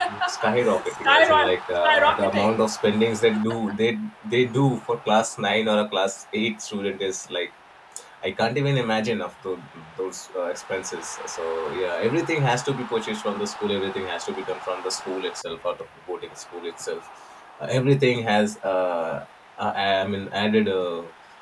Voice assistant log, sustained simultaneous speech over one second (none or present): present